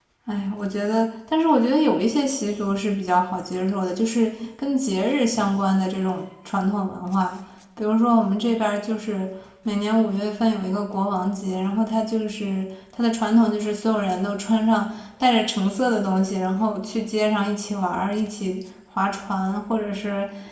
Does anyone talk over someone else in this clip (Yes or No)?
No